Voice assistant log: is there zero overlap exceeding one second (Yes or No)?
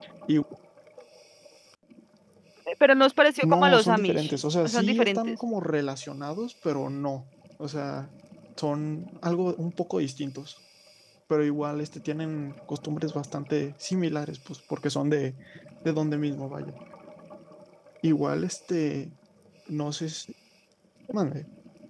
No